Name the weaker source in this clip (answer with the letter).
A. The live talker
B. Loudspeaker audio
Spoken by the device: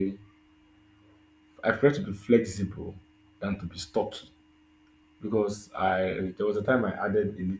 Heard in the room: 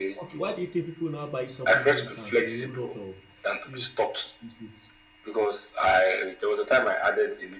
A